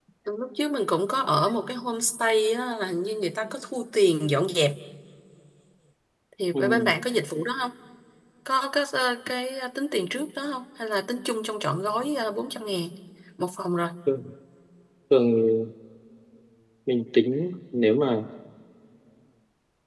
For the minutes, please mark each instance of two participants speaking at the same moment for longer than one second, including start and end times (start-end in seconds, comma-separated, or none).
none